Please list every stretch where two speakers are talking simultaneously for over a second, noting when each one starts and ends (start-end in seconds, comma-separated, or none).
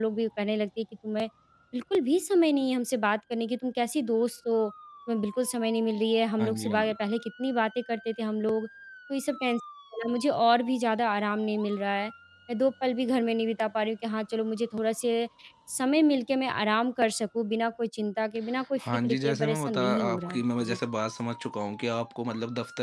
18.8-20.8